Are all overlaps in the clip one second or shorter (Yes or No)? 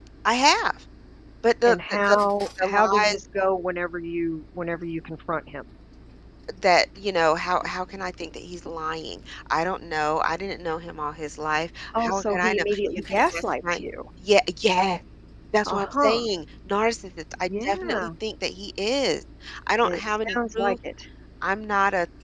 No